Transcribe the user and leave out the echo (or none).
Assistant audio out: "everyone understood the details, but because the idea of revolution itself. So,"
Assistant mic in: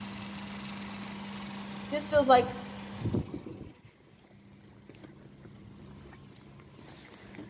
This feels like